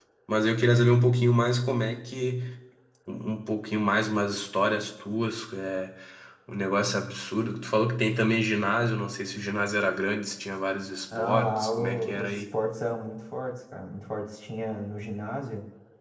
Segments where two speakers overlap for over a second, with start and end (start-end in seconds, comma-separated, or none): 11.2-12.4